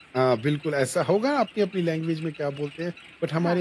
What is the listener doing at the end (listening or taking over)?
listening